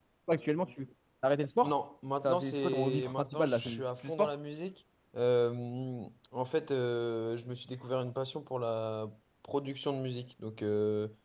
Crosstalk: present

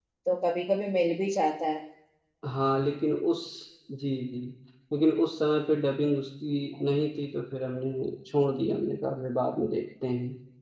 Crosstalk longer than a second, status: none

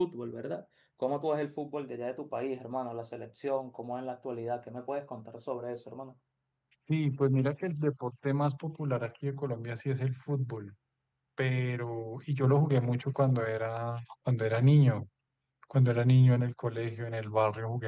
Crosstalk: none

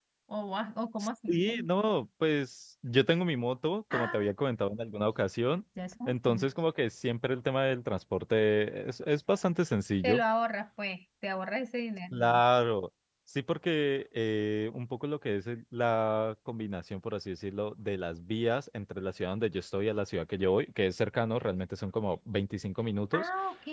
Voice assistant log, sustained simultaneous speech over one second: none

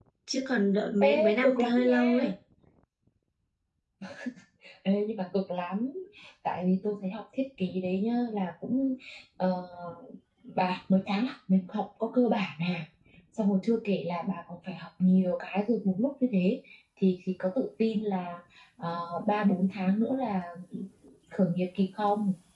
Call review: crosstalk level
present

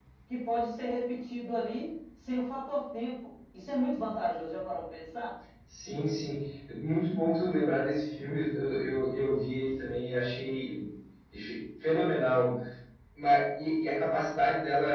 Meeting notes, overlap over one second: none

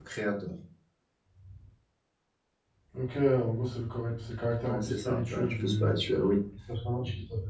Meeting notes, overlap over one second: present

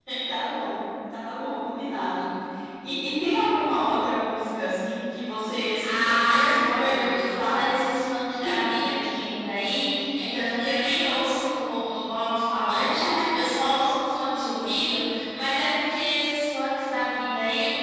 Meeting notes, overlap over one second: present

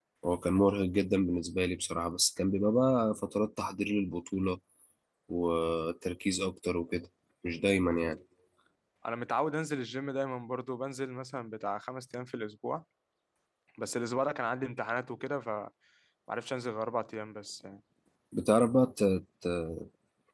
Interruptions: none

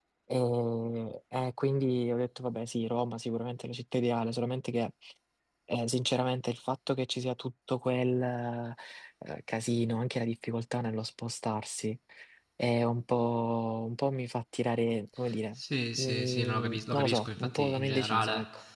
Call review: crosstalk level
present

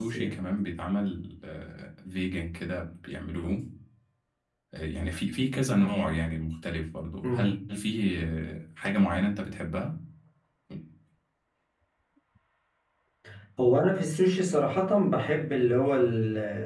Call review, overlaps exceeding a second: none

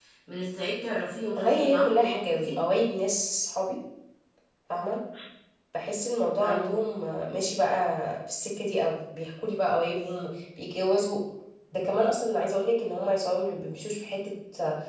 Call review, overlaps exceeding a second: present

